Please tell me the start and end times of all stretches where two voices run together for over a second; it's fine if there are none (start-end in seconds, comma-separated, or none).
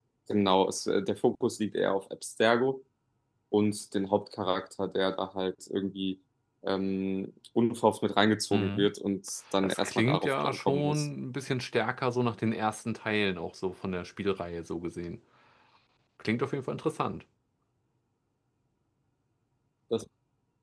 9.6-11.1